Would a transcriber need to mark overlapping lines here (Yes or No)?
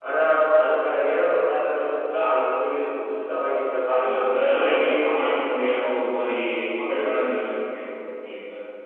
Yes